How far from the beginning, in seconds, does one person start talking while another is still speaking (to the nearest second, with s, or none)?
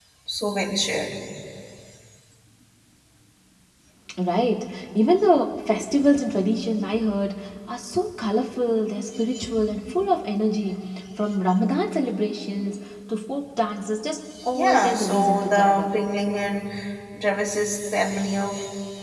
14 s